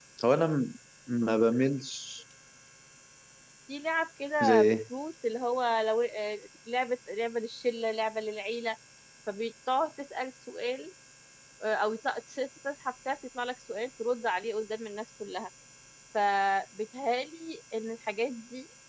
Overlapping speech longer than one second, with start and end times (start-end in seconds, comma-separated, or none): none